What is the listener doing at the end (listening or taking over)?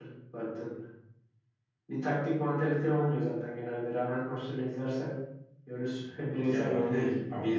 taking over